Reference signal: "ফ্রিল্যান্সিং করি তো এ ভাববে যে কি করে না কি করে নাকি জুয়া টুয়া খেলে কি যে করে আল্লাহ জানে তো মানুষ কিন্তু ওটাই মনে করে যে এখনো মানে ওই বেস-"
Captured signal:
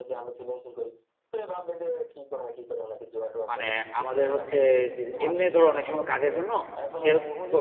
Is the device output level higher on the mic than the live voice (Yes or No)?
No